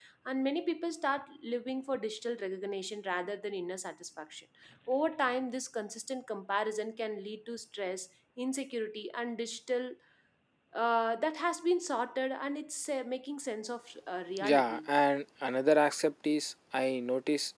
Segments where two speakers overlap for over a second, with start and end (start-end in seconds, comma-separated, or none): none